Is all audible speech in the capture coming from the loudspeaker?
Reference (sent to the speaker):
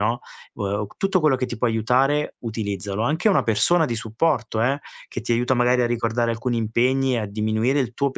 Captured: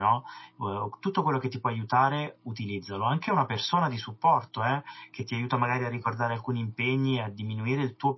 Yes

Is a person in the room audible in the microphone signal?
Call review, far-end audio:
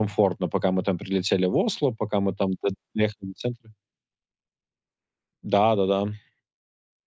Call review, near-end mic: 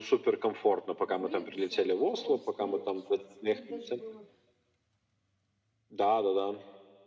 Yes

